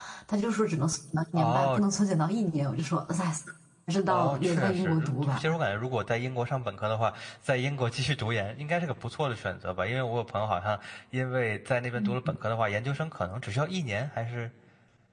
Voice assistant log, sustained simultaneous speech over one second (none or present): present